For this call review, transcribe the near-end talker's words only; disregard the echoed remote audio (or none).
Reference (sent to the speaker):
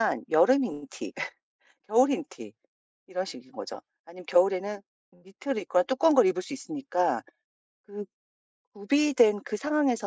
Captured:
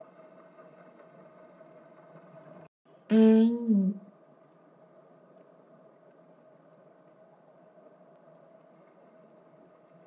음.